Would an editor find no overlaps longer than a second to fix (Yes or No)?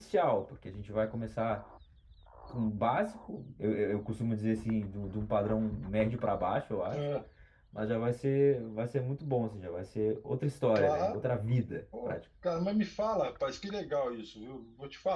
Yes